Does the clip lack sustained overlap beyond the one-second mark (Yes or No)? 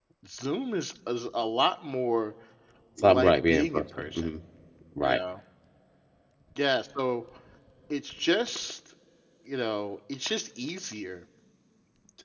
No